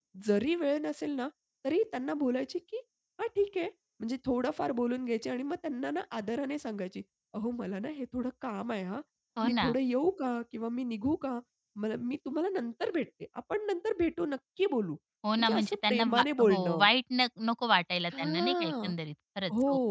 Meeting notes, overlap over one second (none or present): present